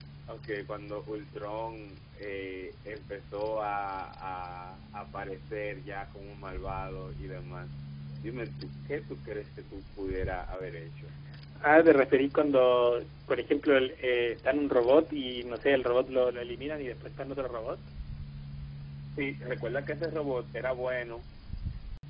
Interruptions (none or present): none